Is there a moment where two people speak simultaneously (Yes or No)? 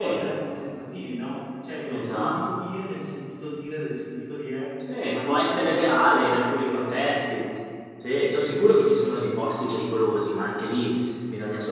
Yes